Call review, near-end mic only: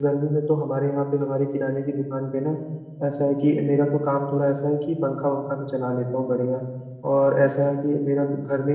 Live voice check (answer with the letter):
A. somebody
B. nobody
A